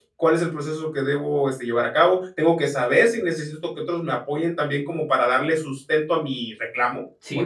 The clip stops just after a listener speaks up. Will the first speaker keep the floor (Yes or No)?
No